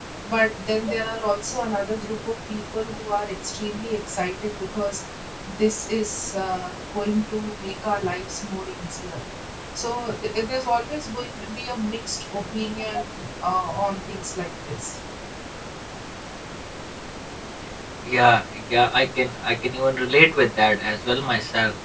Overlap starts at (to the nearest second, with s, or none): none